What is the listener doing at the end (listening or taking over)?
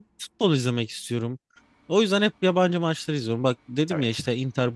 listening